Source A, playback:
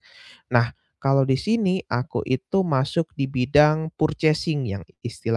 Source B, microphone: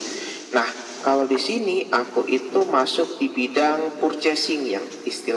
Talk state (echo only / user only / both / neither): echo only